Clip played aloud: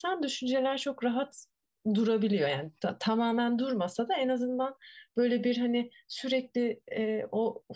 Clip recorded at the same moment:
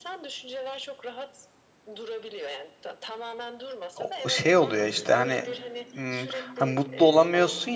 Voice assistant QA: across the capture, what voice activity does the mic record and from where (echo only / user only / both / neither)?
both